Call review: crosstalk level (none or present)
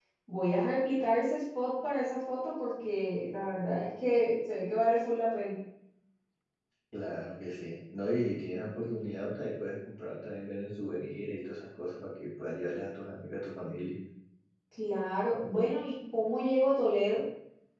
none